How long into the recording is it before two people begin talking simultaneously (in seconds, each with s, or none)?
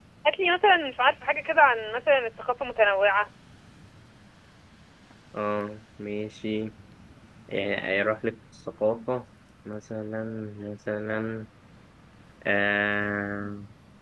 none